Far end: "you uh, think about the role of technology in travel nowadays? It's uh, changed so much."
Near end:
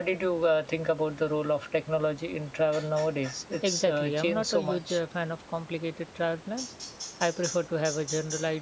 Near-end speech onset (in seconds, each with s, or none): 3.6 s